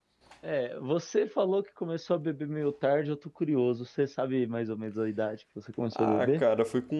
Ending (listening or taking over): taking over